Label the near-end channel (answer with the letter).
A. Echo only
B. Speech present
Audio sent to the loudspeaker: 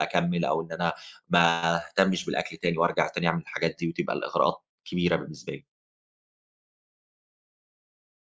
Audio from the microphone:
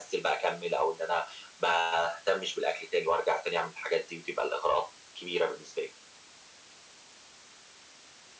A